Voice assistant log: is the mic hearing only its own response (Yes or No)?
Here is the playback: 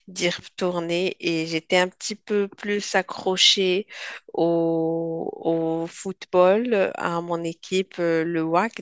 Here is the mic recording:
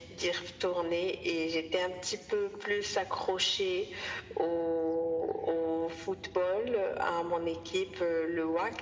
Yes